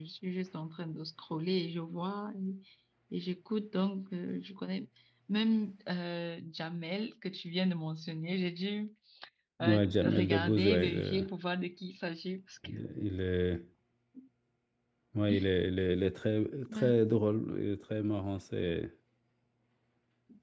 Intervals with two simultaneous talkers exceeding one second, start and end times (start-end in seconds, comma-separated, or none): 9.6-11.2